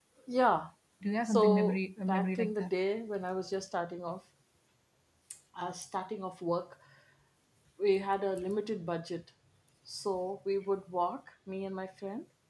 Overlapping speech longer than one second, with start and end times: 1.2-2.7

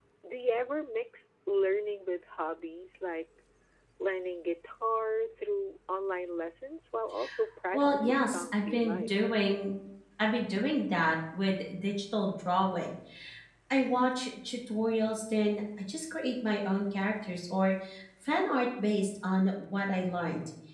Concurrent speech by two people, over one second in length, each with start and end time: 7.7-9.1

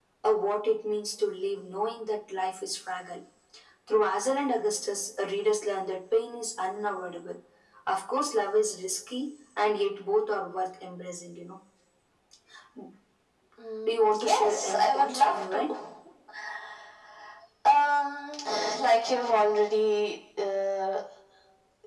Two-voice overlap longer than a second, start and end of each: 13.8-15.6

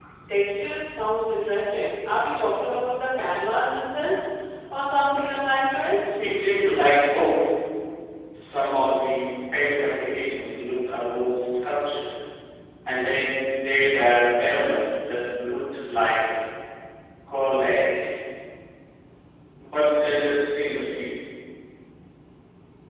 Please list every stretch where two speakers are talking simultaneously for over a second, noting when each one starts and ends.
none

